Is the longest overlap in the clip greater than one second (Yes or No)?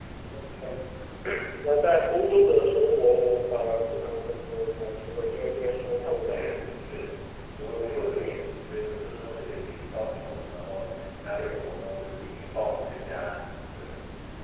No